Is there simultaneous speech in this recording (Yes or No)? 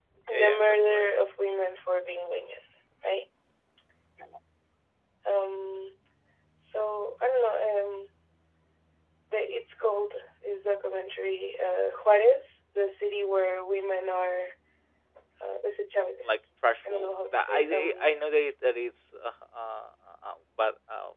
Yes